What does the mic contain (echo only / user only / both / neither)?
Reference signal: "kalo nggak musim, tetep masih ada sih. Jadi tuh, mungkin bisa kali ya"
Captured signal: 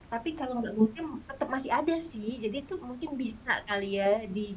echo only